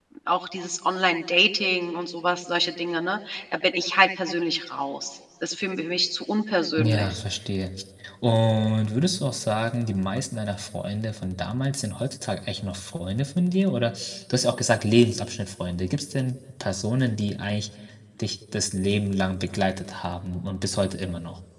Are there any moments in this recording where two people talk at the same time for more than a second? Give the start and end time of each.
none

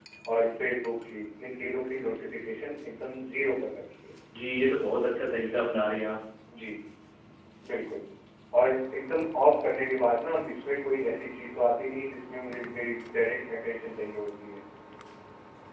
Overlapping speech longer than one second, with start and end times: none

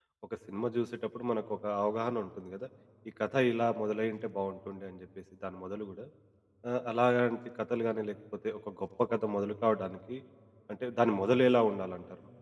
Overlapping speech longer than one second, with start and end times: none

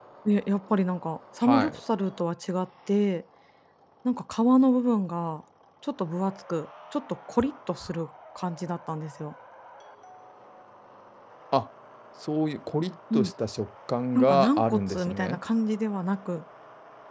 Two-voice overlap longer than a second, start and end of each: 14.2-15.4

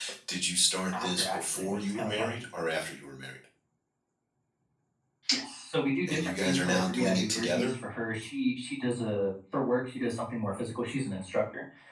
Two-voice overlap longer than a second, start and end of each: 1.0-2.3, 6.1-7.7

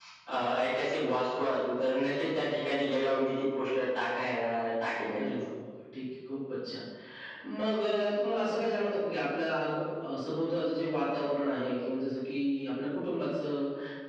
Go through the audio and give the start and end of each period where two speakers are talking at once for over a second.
none

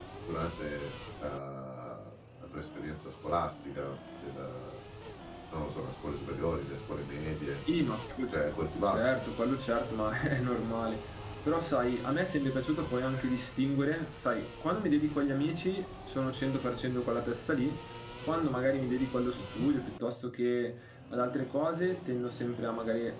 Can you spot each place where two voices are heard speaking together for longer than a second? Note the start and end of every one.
none

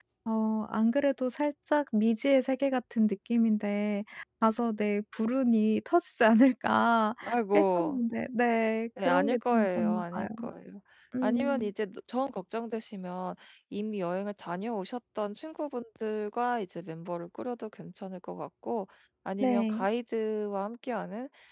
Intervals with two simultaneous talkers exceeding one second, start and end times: 9.1-10.3

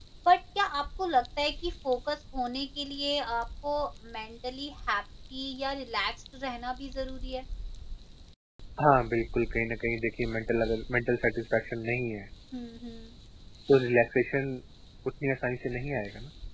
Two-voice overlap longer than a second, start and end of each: none

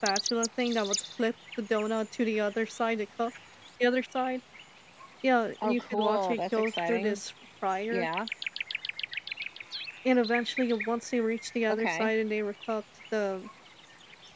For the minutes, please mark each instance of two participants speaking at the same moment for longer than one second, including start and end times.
5.6-7.2

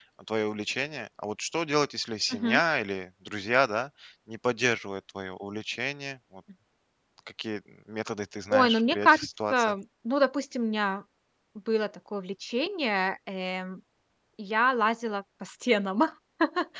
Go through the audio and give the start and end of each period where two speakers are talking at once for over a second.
8.5-9.7

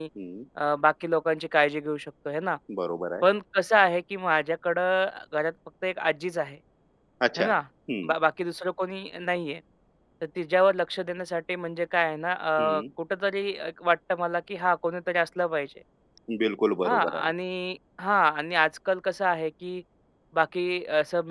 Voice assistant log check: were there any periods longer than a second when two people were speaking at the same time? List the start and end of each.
none

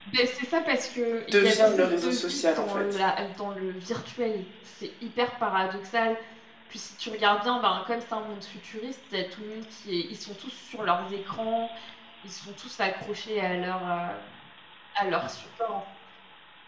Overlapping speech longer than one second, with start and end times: 1.3-2.8

